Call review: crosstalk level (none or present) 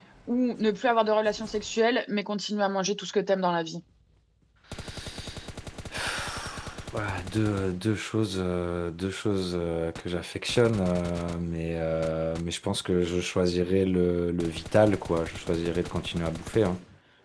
none